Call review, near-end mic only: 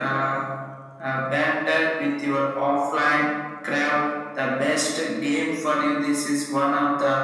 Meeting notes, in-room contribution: none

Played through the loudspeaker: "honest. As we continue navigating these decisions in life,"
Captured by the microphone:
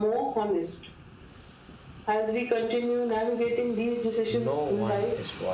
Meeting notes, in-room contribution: present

